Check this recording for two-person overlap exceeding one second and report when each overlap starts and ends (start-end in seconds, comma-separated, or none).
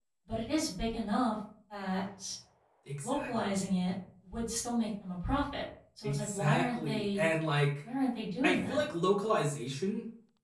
6.0-7.2